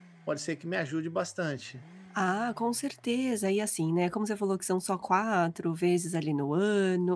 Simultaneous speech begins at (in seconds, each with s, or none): none